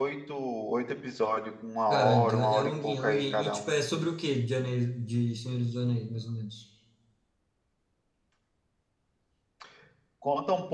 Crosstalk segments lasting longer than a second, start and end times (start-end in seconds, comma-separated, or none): 1.9-3.8